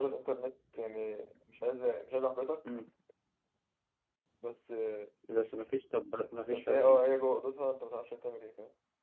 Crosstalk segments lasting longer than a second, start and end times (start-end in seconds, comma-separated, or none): none